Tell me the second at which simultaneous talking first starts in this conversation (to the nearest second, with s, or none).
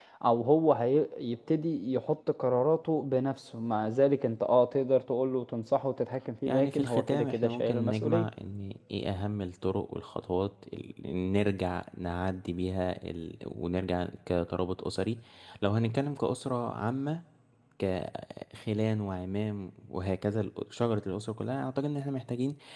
6 s